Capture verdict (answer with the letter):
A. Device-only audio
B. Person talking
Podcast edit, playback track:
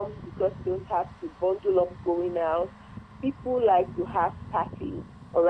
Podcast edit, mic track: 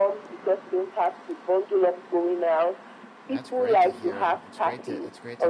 B